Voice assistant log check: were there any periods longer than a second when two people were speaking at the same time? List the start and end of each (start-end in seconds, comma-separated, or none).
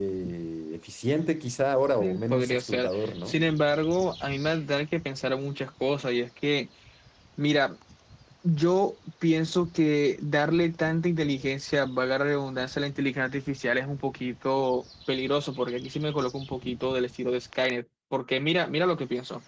2.0-3.4